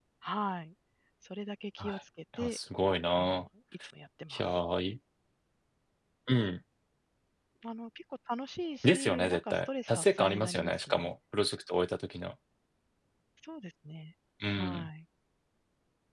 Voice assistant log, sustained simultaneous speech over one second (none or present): present